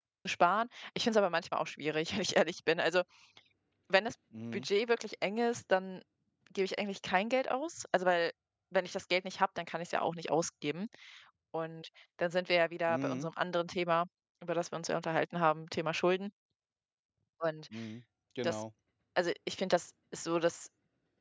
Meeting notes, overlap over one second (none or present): none